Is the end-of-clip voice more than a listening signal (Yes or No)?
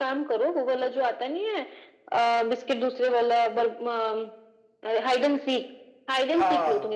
No